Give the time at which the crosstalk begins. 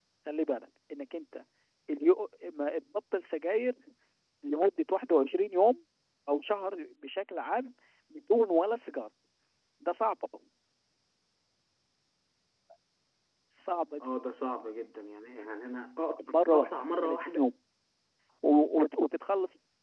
16.3 s

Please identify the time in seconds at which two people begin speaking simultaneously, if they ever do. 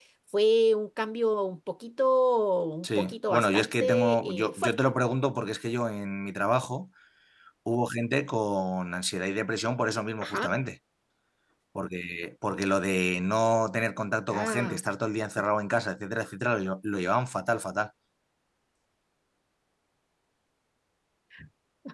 2.8 s

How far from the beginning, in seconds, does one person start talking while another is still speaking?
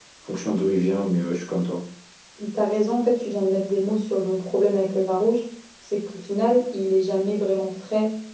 none

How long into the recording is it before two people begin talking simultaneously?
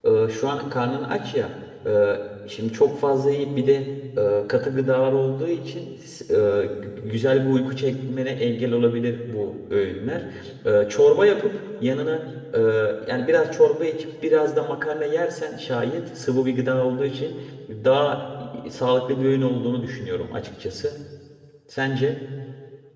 none

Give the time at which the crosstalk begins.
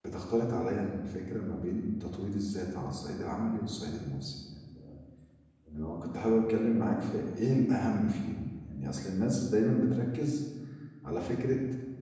none

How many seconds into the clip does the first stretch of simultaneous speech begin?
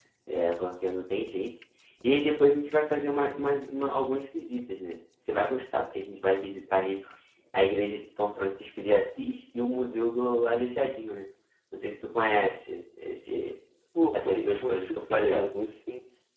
14.1 s

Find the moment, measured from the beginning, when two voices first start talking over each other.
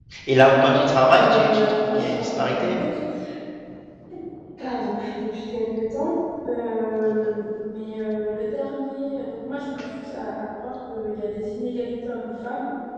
1.1 s

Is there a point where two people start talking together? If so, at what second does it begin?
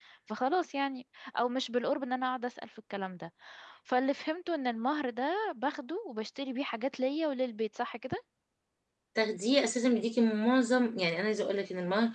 none

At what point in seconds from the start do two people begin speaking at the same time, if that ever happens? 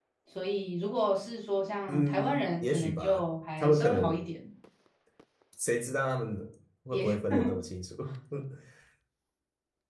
1.9 s

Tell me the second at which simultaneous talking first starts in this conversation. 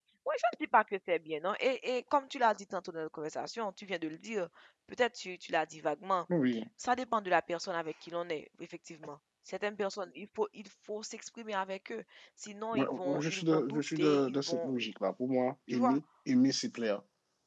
12.7 s

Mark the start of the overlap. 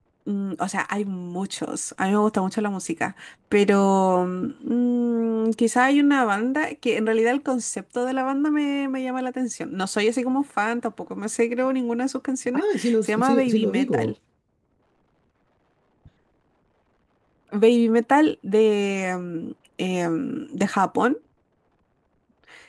12.5 s

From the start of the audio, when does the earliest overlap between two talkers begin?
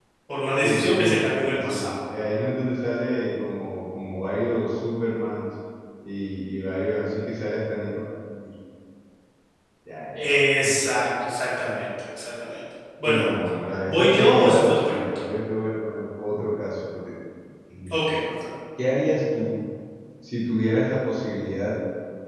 0.6 s

